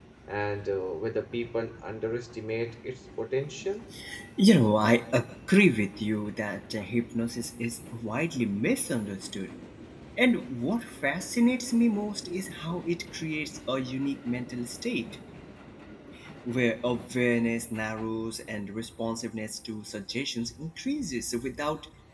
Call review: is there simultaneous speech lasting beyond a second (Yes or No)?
No